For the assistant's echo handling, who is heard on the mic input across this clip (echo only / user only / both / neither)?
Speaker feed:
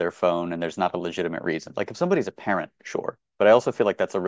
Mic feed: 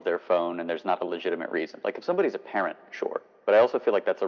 echo only